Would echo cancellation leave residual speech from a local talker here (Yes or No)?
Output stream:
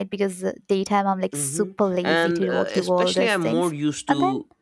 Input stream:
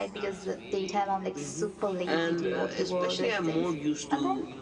Yes